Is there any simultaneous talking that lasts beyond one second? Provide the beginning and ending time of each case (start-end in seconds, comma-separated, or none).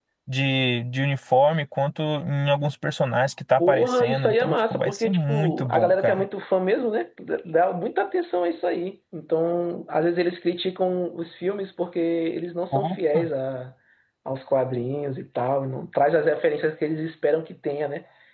3.6-6.3